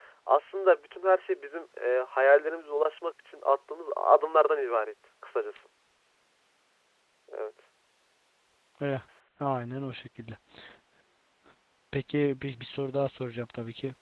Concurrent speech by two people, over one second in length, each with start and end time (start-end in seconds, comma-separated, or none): none